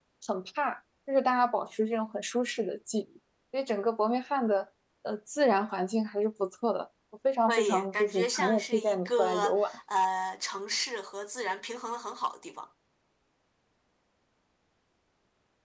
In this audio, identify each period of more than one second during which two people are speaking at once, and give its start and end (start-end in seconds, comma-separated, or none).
7.5-9.8